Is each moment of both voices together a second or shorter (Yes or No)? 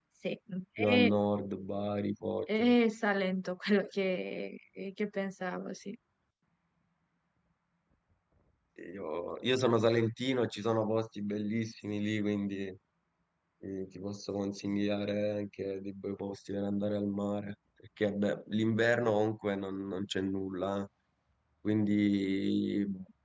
Yes